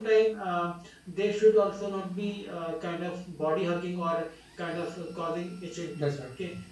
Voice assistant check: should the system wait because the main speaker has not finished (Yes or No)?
Yes